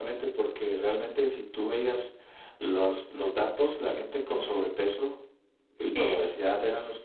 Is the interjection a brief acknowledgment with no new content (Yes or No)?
Yes